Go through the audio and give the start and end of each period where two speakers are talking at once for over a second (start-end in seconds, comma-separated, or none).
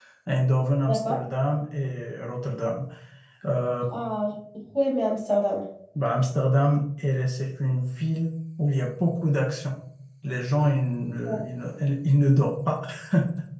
none